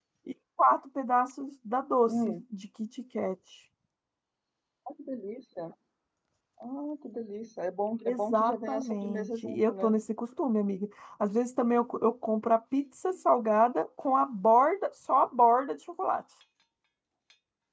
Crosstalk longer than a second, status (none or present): present